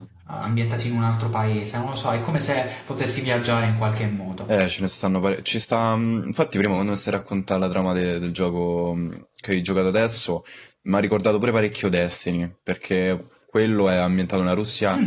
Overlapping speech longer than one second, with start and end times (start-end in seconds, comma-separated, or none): none